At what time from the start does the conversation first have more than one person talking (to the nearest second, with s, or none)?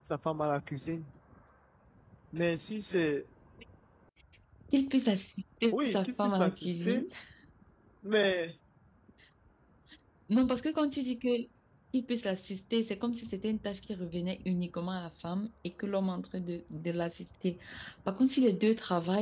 6 s